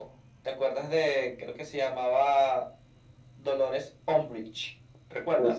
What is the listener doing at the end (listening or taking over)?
taking over